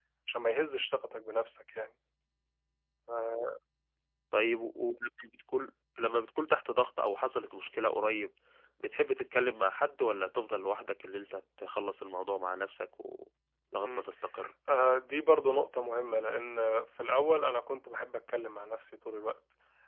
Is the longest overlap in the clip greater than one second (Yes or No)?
No